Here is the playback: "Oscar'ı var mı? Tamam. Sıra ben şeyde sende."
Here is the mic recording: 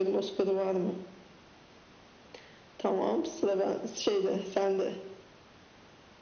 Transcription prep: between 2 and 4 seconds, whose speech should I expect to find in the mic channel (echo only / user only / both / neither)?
echo only